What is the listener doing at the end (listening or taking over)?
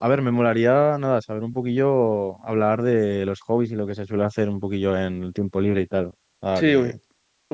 taking over